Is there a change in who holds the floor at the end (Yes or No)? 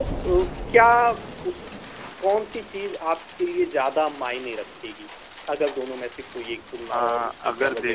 Yes